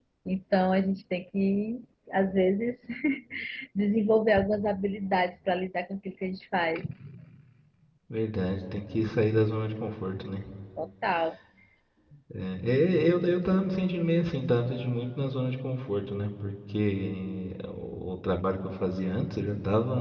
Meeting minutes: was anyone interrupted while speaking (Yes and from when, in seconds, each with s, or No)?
No